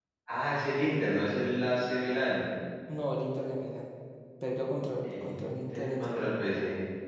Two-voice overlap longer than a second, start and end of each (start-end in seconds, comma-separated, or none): 5.0-6.5